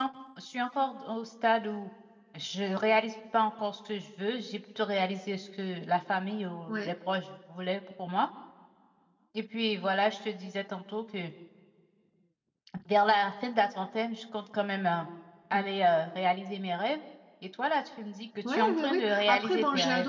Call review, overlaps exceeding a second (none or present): present